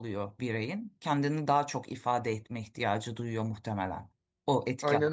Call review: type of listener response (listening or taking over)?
taking over